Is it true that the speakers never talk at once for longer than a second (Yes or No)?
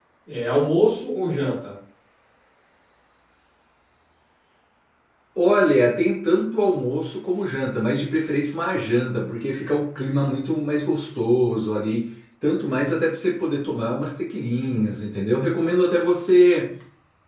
Yes